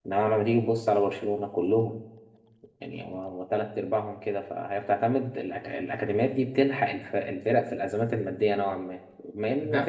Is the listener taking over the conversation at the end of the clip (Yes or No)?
Yes